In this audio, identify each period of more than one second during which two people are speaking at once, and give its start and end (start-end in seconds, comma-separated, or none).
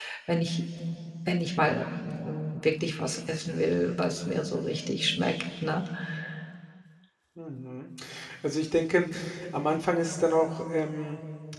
none